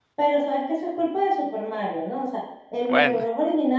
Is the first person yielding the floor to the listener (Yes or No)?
No